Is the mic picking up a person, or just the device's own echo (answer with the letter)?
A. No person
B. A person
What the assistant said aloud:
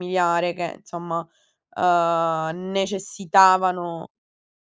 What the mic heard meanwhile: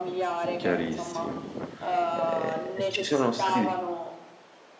B